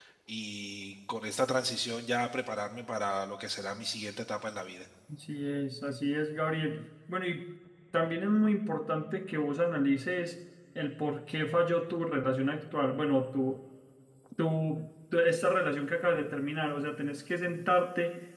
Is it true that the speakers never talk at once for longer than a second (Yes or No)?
Yes